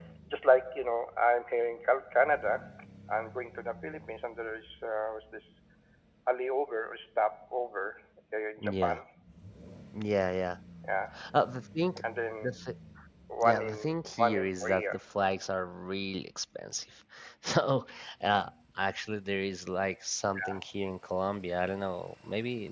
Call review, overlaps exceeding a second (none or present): present